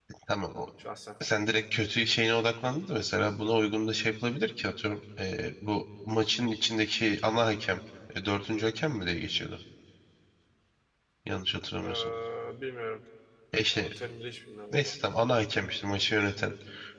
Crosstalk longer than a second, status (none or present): none